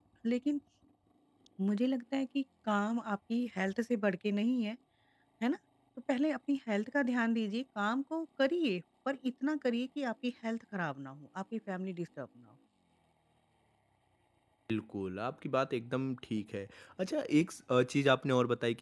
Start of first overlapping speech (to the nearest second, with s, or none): none